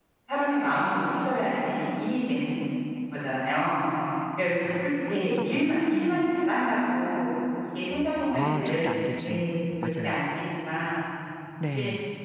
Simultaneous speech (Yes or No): Yes